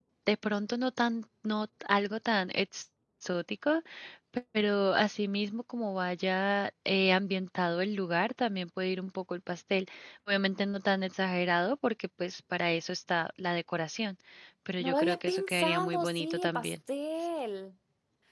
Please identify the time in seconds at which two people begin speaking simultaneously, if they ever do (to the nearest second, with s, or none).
15 s